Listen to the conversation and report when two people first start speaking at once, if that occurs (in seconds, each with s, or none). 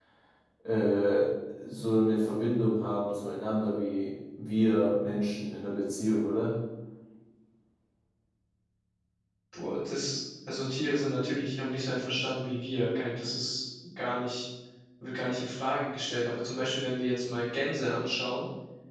none